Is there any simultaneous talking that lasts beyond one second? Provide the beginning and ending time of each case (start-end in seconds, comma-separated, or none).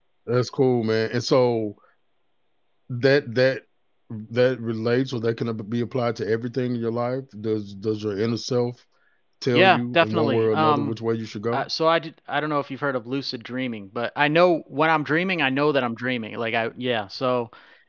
9.5-10.9